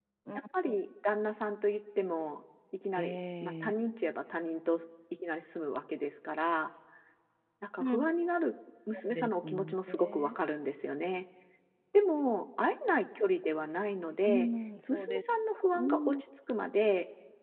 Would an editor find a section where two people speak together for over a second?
Yes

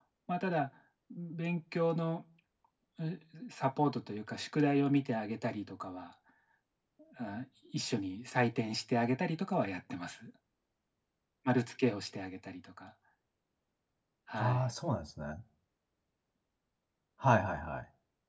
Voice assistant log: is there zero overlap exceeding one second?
Yes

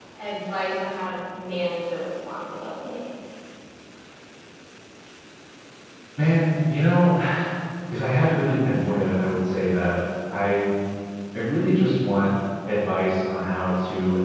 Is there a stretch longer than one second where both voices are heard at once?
No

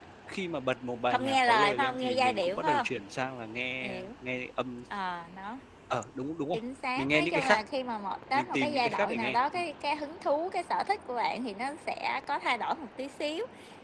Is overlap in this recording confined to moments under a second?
No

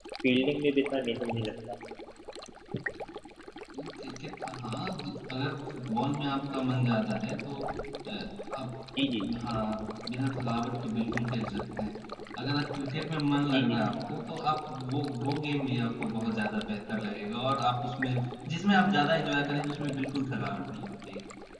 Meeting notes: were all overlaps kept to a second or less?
Yes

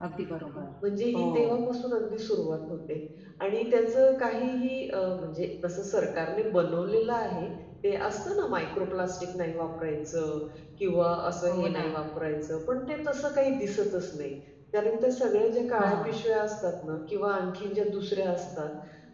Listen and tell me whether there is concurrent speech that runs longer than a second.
No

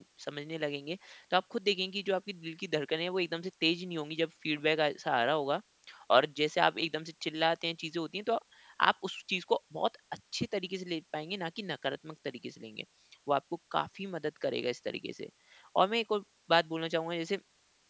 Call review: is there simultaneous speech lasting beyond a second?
No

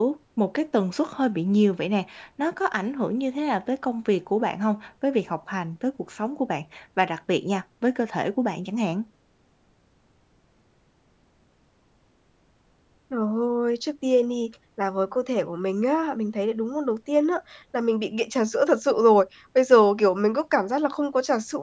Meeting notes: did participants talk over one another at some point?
No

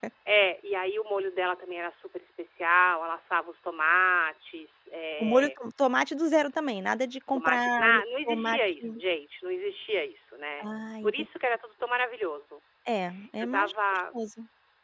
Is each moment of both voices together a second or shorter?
No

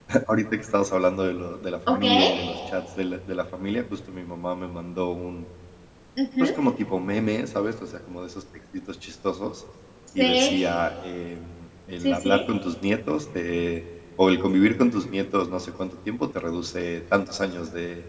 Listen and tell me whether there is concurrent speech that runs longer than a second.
No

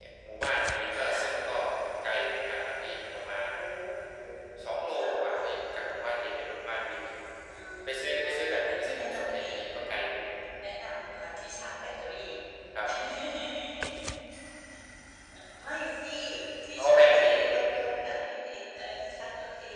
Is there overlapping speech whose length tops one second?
Yes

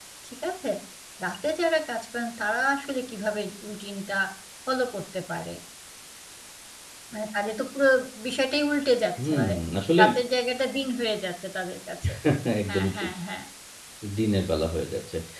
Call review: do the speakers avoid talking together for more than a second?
Yes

